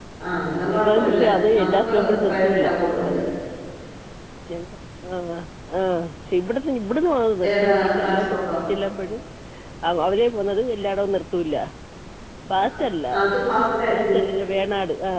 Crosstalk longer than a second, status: present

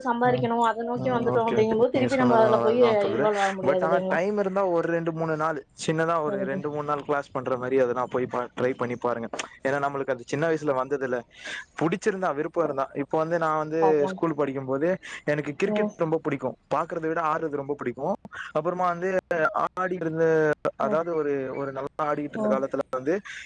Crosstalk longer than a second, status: present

